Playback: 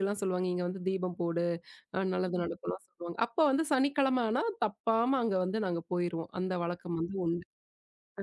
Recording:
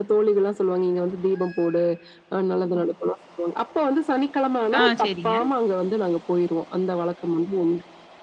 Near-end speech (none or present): present